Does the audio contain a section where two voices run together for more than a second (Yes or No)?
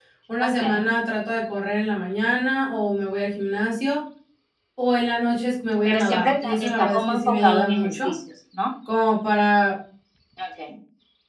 Yes